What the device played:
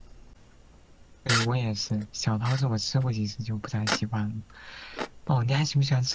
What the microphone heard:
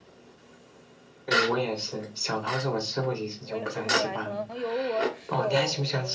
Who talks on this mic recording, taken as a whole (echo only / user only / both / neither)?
both